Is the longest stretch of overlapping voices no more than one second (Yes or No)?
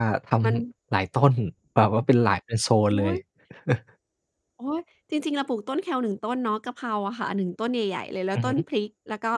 Yes